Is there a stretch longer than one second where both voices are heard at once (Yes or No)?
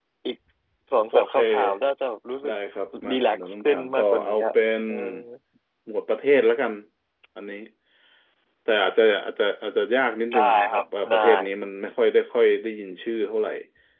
Yes